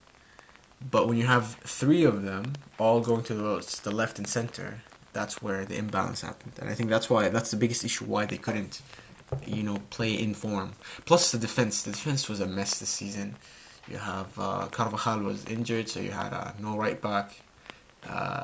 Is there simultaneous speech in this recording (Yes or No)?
No